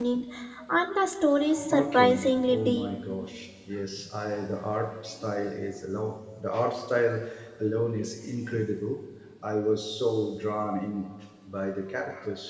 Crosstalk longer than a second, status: present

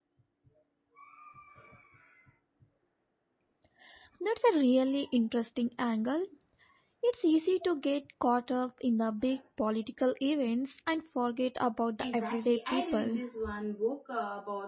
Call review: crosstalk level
present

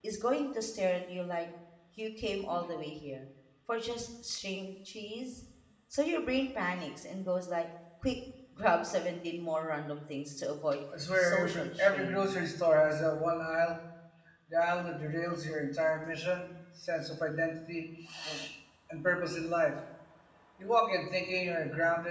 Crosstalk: present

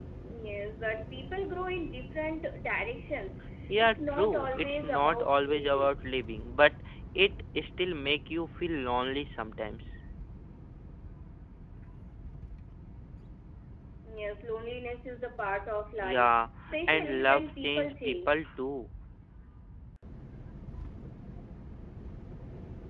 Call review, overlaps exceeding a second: present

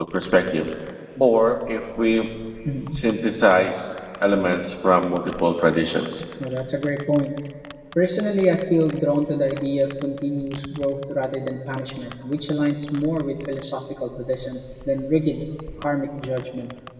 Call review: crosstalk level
none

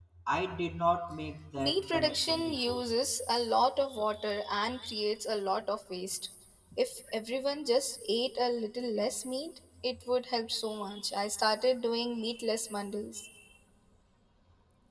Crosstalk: present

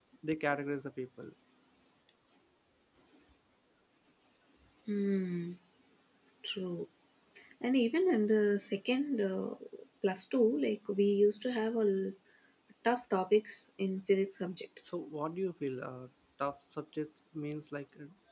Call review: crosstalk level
none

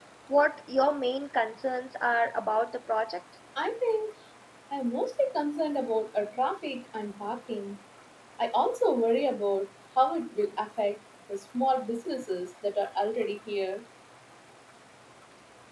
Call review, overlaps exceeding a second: none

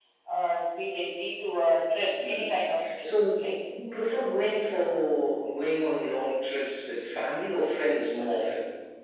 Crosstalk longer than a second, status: none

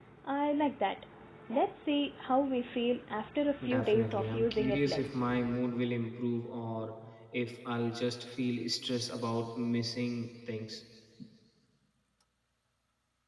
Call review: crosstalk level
present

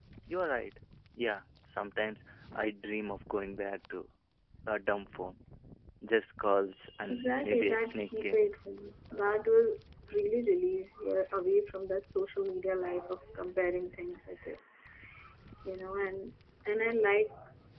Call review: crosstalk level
present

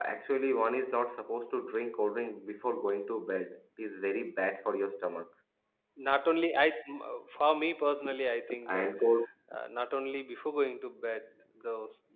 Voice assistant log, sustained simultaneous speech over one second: none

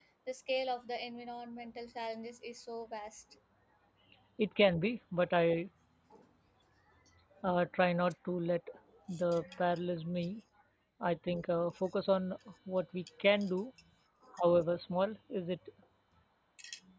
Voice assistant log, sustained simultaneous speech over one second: none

